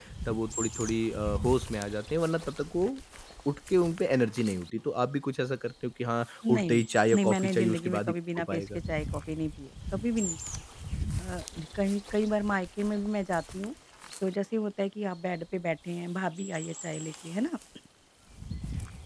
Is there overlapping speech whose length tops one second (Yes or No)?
Yes